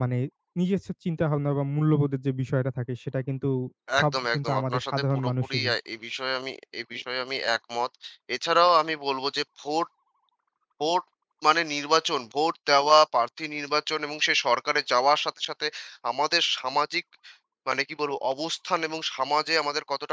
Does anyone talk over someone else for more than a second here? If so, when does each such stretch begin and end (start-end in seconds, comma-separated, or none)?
4.0-5.7